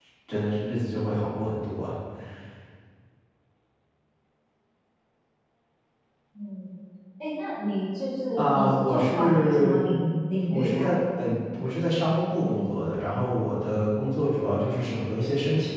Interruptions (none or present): present